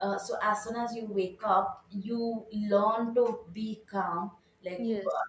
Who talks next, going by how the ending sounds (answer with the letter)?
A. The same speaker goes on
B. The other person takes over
A